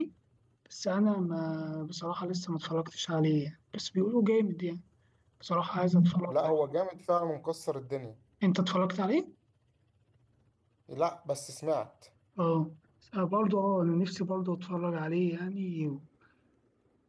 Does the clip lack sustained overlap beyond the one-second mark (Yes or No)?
Yes